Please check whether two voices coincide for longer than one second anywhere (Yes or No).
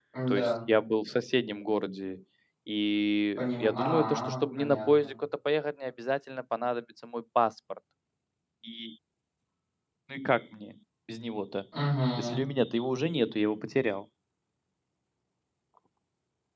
Yes